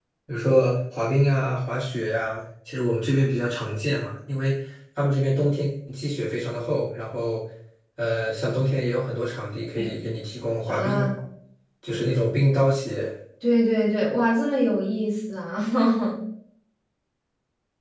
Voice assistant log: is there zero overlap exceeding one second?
Yes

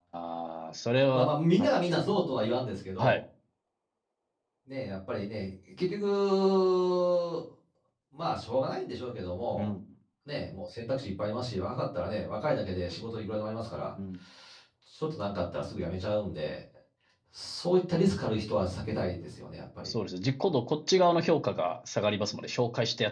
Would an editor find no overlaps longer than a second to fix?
Yes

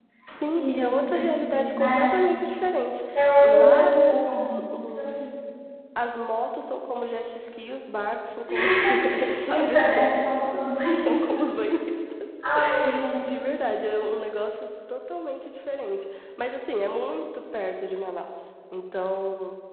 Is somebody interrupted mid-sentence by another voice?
Yes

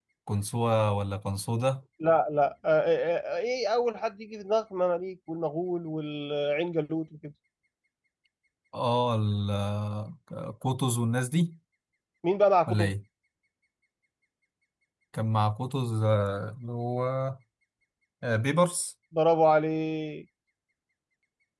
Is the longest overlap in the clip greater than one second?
No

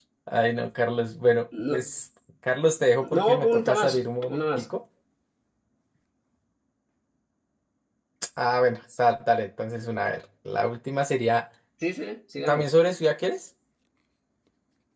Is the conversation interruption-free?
No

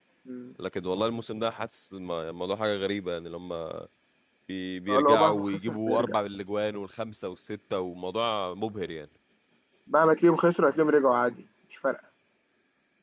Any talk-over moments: Yes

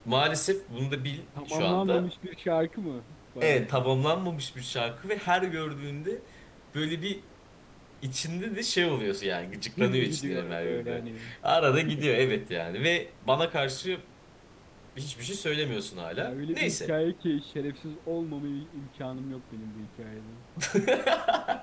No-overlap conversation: No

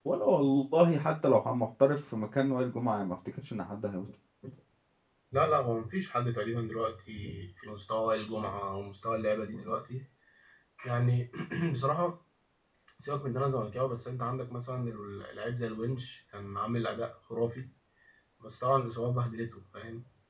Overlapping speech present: No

